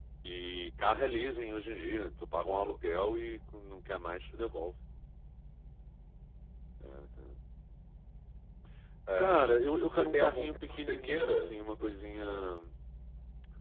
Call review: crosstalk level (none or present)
present